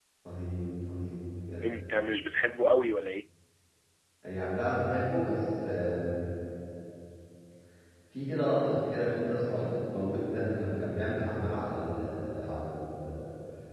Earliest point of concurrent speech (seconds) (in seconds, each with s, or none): none